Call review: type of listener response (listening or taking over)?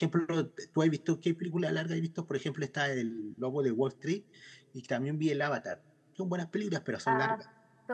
taking over